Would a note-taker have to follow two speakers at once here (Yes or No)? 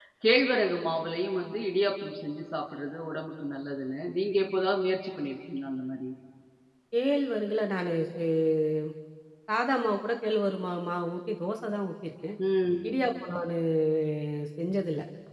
No